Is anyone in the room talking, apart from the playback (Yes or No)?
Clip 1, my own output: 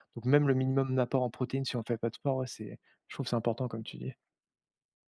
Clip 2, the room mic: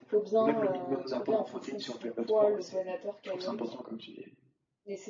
Yes